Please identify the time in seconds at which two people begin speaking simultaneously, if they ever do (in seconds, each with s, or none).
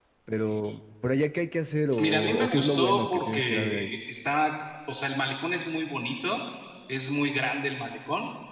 1.9 s